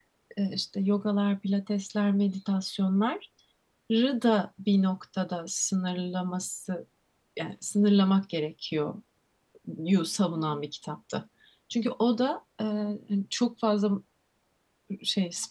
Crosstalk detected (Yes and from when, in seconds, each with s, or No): No